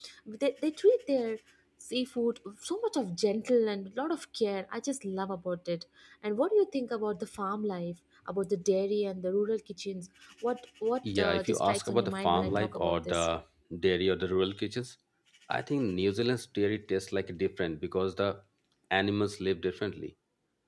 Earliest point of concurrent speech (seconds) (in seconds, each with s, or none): 11.0 s